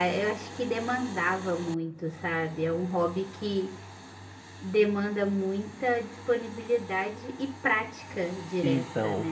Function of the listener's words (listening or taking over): taking over